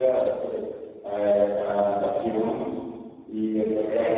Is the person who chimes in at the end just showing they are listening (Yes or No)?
Yes